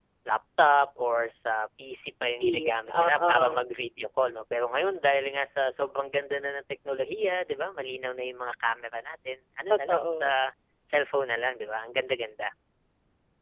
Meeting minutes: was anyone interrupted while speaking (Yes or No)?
Yes